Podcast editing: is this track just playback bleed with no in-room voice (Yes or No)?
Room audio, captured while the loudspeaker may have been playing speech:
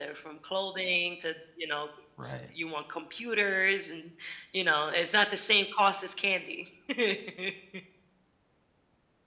No